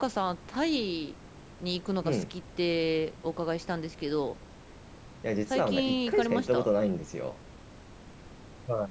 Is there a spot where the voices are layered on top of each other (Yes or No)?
Yes